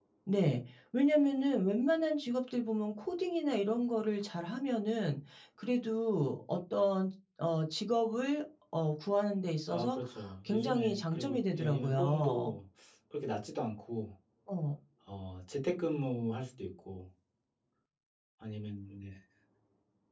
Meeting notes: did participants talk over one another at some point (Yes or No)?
Yes